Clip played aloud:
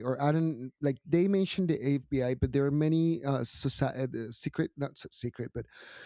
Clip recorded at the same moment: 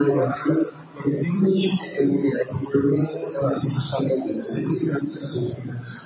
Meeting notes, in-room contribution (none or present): none